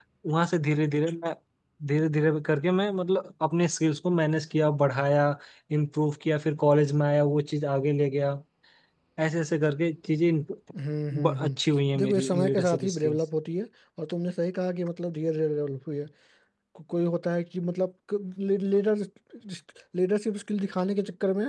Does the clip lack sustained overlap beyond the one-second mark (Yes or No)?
No